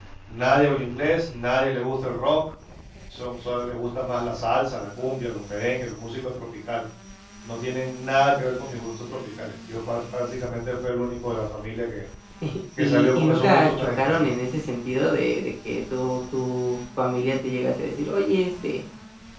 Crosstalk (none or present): present